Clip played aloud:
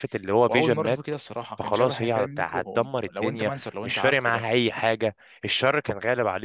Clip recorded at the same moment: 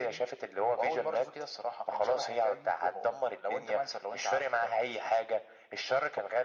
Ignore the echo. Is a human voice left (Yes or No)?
No